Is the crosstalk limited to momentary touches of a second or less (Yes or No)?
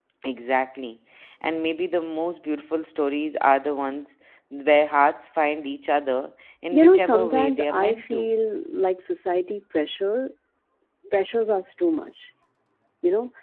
No